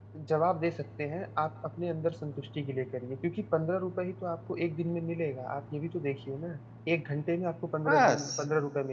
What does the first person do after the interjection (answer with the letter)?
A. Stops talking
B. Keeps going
B